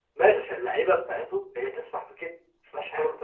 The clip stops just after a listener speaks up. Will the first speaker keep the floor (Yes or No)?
No